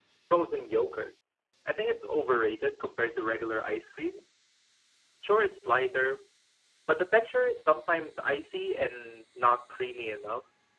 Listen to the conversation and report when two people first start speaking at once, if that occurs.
none

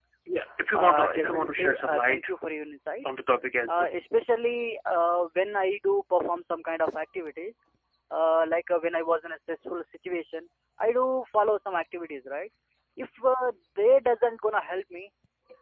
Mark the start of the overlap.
1 s

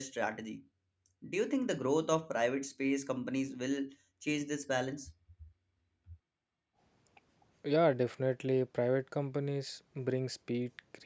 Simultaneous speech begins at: none

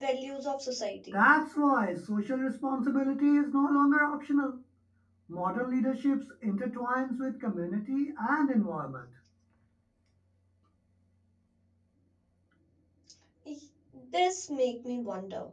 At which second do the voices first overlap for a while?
none

